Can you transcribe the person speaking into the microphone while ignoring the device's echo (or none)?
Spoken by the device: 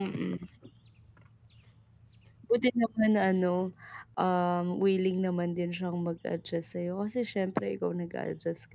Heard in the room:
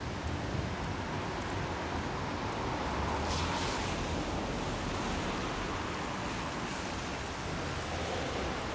none